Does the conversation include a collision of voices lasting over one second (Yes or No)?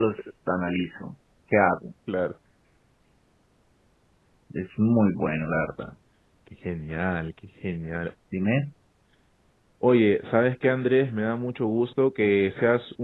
No